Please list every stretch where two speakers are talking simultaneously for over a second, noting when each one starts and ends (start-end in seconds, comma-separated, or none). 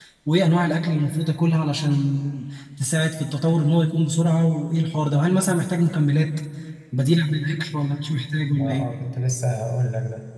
none